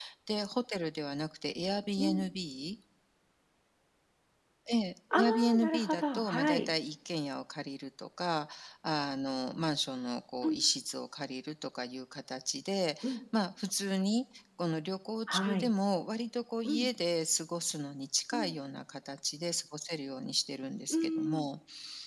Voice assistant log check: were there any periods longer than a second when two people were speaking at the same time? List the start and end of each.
5.3-6.6

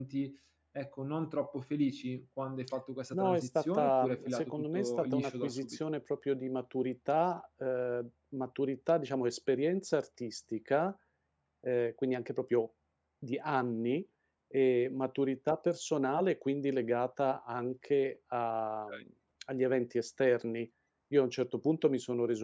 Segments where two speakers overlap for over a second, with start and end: 3.1-5.8

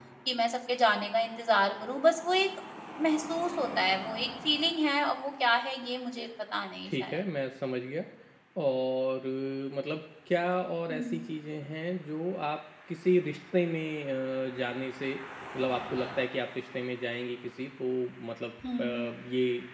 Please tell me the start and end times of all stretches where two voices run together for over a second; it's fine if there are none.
none

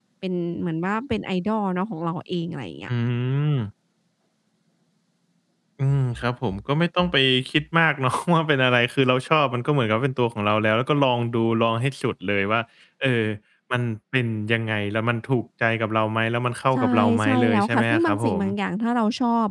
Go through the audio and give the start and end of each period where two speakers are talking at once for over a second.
16.8-18.4

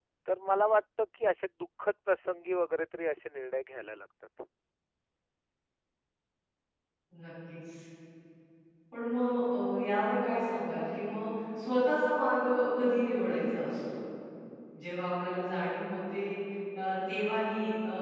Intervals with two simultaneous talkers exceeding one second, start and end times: none

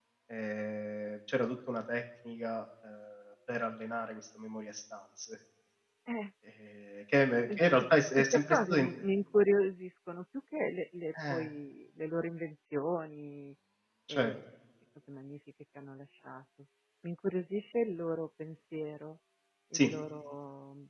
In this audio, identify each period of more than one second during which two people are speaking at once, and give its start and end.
7.4-8.9

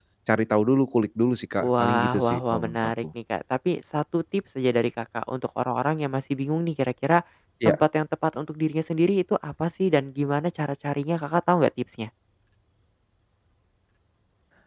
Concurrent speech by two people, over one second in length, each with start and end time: 1.8-3.0

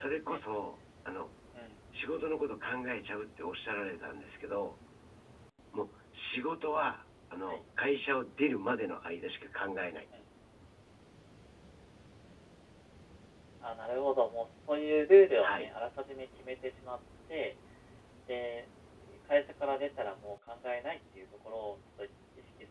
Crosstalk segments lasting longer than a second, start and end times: none

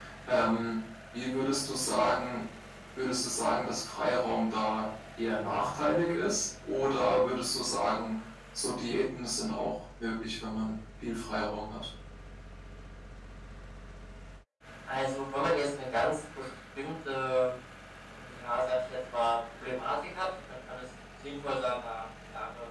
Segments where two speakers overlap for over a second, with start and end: none

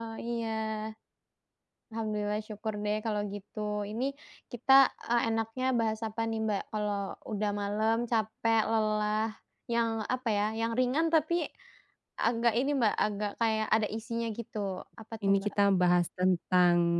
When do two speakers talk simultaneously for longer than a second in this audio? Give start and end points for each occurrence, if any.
none

